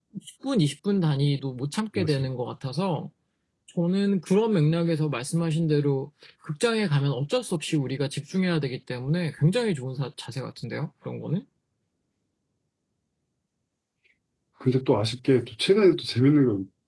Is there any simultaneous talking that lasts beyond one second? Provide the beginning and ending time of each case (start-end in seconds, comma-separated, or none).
none